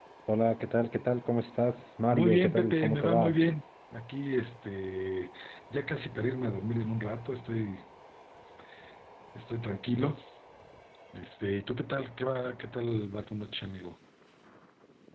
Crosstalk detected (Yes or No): Yes